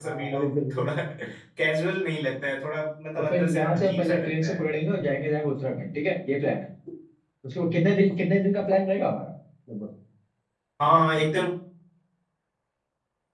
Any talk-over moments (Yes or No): Yes